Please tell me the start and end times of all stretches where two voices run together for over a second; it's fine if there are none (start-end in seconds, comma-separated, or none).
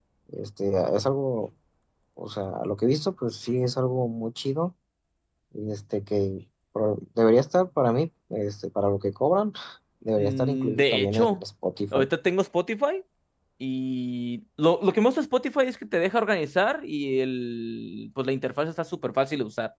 10.2-11.4